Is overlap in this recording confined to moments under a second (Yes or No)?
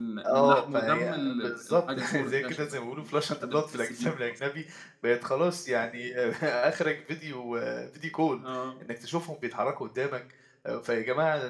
No